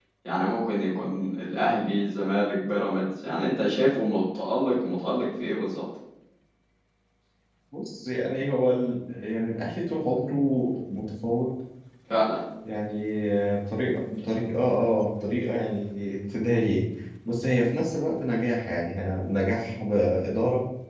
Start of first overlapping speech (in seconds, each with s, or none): none